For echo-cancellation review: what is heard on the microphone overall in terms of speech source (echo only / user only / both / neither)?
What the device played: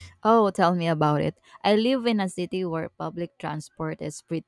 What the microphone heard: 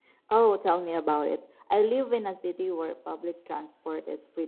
echo only